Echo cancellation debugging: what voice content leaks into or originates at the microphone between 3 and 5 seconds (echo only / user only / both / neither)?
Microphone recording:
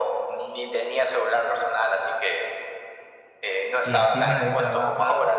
both